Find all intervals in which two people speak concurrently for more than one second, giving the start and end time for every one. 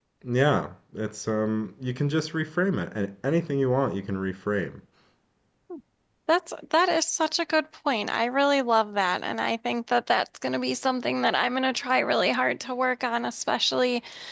none

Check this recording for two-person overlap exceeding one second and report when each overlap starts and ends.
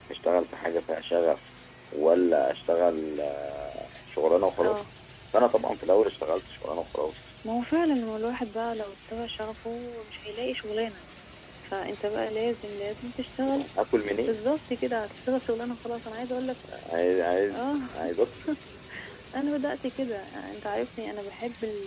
none

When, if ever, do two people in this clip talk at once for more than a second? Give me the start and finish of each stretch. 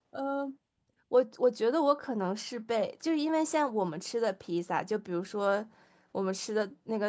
none

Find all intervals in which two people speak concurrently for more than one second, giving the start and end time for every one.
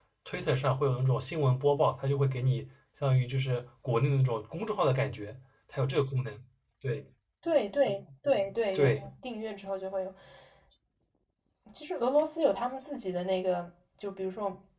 none

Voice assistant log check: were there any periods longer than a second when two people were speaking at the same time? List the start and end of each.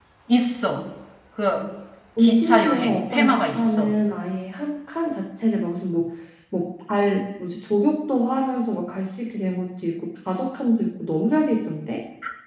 2.2-3.9

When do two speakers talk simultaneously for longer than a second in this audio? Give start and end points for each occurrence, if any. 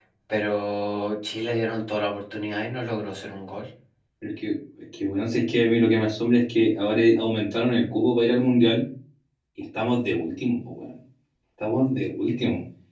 none

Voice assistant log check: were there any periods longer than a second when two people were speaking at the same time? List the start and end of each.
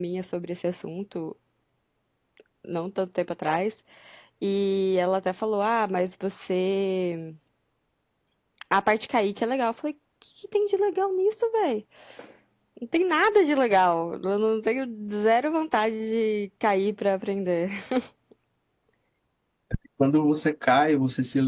none

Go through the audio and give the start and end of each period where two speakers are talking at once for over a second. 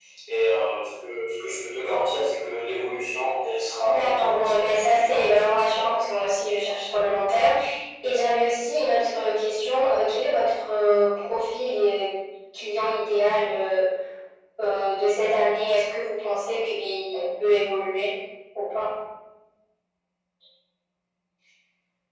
3.8-5.5

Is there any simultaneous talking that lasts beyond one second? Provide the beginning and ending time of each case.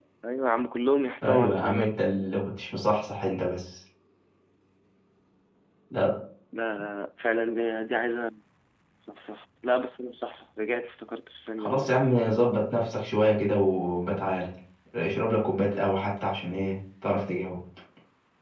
1.2-2.4

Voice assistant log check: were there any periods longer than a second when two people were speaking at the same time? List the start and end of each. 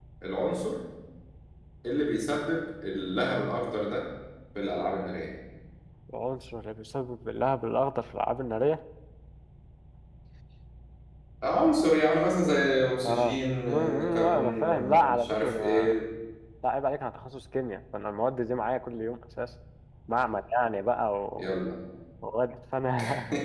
13.0-15.9

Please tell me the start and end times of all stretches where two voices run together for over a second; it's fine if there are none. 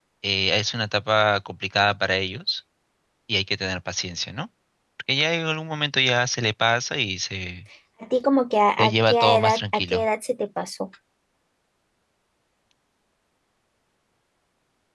8.8-10.1

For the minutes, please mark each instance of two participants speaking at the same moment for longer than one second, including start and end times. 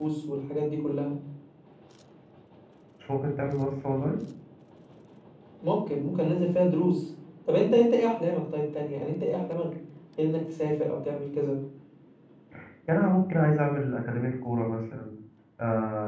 none

